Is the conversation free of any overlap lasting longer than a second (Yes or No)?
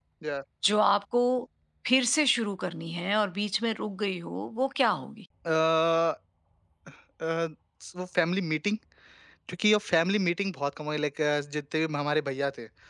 Yes